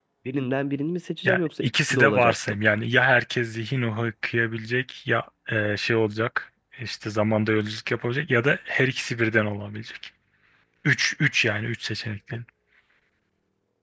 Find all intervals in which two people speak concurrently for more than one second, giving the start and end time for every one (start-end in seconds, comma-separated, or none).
1.2-2.6